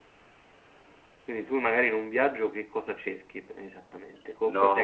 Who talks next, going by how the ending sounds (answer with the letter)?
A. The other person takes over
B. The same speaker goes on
A